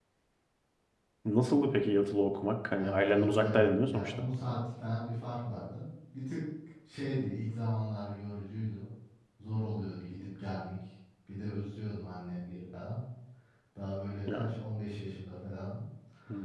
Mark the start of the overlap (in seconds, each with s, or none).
2.8 s